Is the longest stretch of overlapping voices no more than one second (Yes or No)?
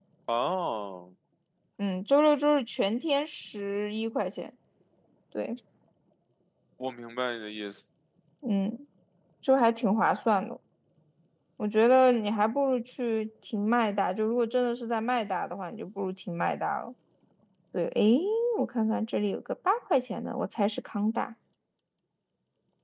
Yes